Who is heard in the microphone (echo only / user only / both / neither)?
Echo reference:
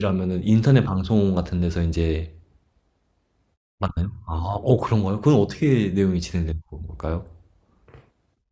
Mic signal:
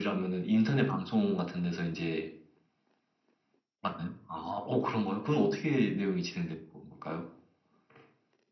echo only